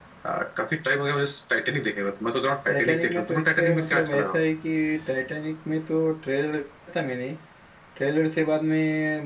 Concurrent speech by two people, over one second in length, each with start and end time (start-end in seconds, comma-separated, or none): 2.7-4.3